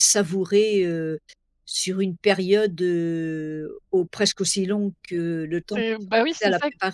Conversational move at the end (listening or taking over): taking over